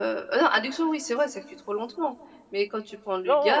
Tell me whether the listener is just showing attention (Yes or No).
Yes